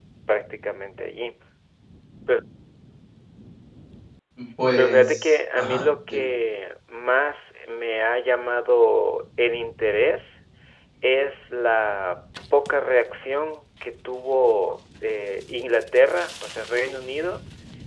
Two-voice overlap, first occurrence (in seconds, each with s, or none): 4.8 s